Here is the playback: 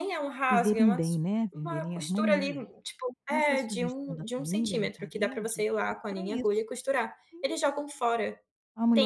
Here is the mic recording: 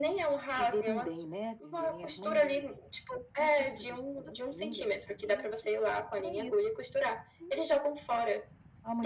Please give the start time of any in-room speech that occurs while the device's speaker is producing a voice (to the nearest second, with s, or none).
none